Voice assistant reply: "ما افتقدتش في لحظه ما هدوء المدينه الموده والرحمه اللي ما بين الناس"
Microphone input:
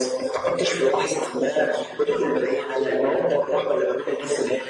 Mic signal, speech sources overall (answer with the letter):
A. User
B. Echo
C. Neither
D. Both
B